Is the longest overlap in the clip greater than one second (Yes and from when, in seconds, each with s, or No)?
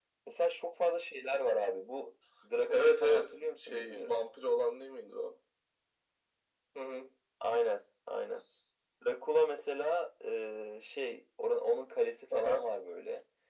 Yes, from 2.7 s